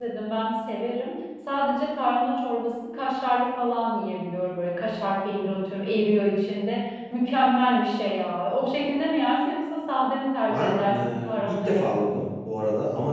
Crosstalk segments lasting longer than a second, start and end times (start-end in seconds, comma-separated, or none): 10.5-11.9